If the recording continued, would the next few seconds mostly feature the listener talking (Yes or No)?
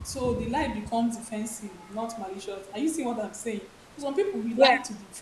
No